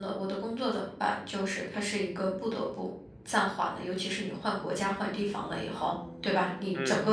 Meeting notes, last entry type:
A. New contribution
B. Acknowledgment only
B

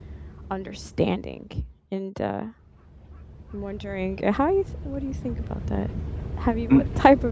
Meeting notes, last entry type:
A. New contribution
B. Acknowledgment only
B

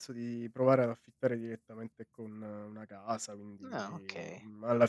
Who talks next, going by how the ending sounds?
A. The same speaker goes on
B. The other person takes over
A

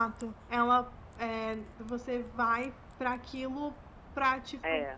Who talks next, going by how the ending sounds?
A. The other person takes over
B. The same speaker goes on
B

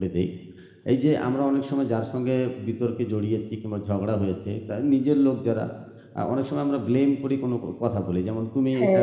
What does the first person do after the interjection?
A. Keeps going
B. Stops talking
A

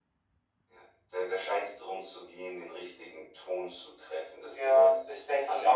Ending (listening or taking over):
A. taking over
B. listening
A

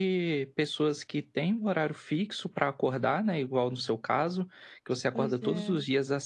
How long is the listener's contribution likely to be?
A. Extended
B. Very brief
B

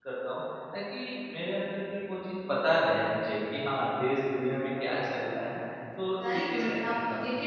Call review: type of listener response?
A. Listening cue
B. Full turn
B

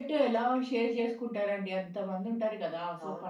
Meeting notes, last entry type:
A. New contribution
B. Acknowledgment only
B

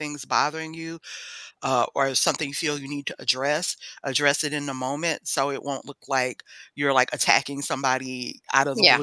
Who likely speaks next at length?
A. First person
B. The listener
A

